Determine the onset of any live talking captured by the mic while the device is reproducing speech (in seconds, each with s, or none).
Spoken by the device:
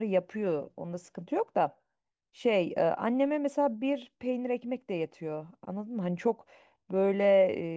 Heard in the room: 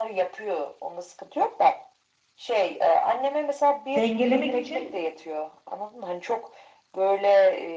4.0 s